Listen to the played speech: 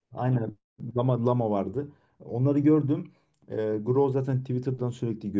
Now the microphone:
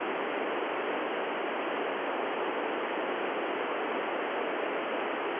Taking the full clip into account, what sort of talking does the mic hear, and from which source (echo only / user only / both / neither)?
neither